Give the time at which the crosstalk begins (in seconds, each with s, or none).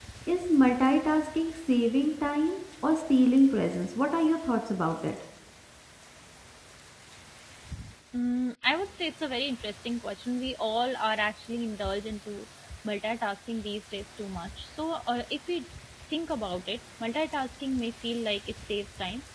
none